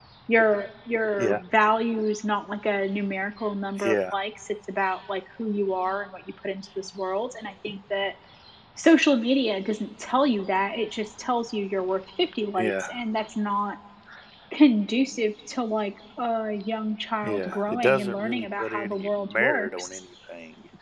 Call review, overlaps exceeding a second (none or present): present